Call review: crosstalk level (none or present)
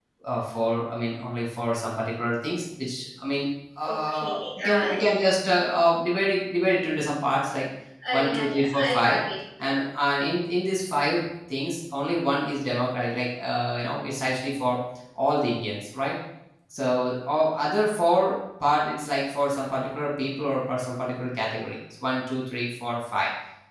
present